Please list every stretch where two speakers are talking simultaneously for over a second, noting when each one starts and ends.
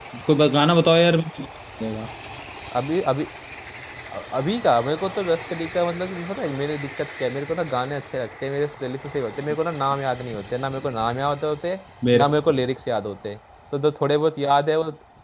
none

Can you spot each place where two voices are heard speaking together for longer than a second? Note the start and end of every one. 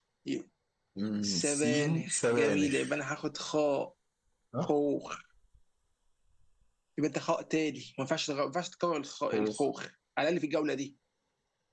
1.2-2.9

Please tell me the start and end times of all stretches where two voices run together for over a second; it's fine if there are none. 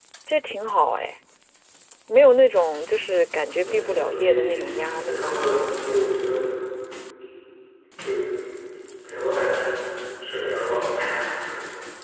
3.6-5.2

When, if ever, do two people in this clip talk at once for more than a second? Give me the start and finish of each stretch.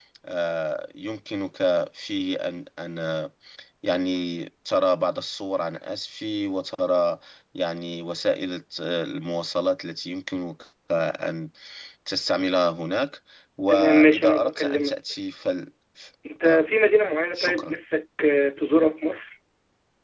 13.7-15.0

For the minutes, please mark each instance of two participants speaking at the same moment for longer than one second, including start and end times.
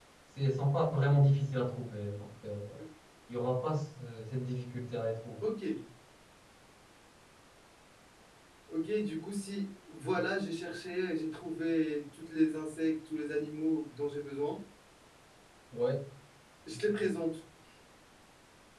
none

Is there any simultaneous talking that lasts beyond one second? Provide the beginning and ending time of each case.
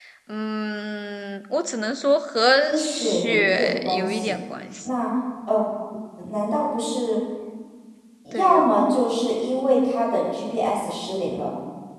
2.8-4.3

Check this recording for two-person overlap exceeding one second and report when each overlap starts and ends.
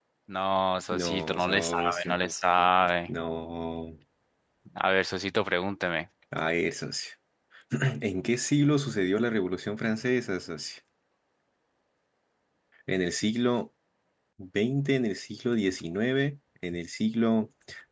0.9-2.2

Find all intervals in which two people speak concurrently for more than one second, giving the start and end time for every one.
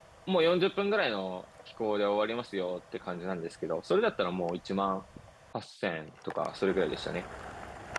none

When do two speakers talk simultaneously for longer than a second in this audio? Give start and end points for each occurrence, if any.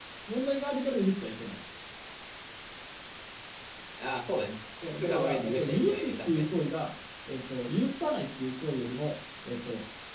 4.8-6.5

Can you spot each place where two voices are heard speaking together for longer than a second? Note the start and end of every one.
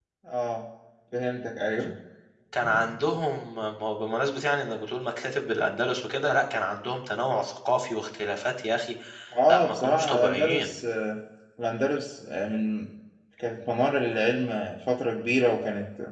9.5-10.7

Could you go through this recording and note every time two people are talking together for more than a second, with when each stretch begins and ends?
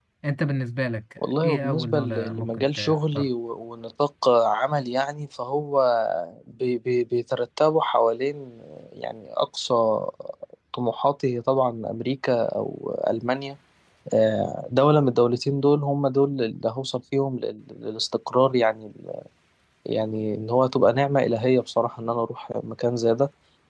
1.2-3.3

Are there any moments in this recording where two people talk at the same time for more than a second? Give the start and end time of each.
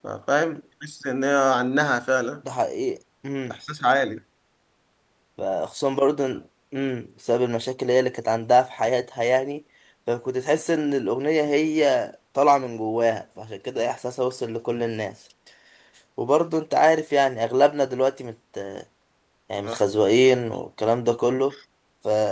none

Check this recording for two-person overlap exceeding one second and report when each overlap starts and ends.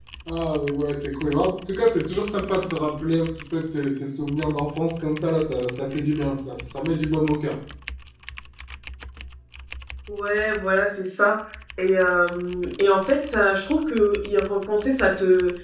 none

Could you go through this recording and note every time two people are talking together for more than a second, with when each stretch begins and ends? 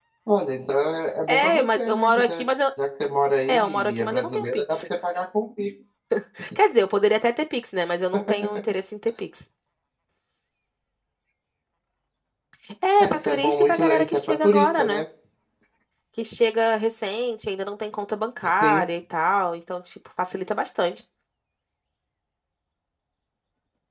1.3-2.5, 3.5-4.8, 13.0-15.0

